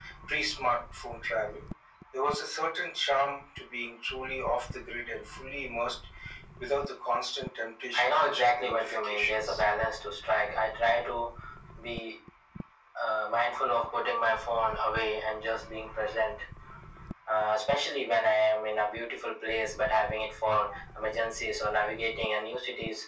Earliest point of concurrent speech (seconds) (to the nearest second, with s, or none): 8 s